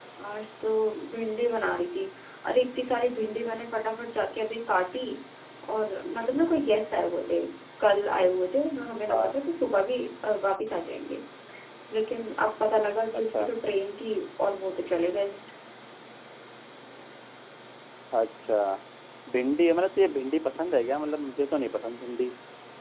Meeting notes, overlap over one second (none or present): none